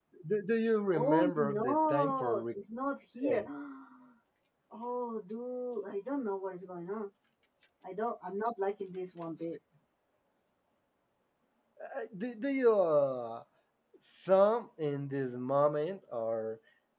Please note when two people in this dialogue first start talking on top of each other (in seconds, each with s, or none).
0.9 s